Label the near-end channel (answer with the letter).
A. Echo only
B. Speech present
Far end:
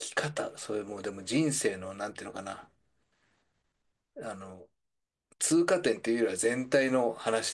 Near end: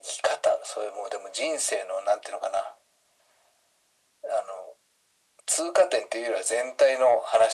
A